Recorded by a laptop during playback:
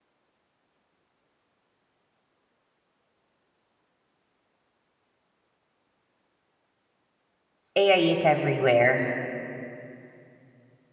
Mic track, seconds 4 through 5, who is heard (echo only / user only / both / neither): neither